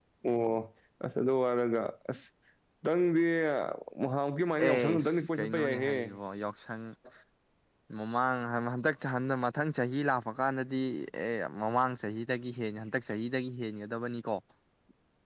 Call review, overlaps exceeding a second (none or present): present